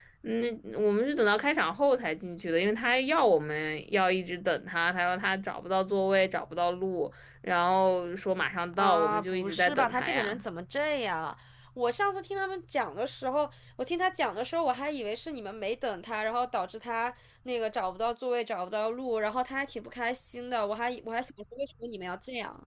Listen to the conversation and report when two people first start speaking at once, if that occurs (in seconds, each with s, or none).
8.7 s